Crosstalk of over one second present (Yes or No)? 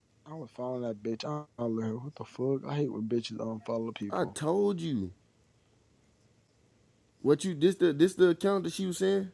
No